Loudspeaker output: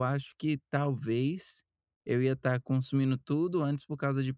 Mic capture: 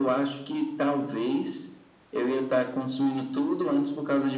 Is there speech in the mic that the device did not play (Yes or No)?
No